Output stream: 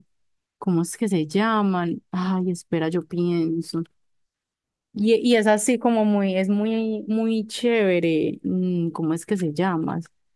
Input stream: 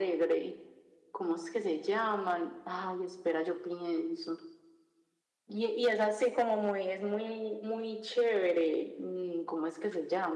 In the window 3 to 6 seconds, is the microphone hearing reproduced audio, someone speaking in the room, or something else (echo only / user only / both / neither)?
echo only